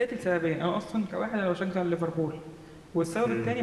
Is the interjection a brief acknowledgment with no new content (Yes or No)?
Yes